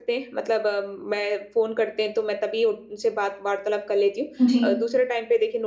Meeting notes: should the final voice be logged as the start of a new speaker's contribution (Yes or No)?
No